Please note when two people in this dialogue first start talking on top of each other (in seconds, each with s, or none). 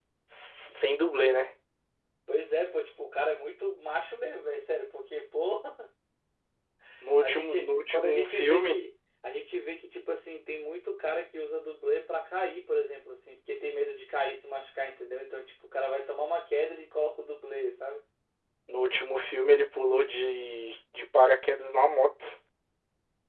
7.2 s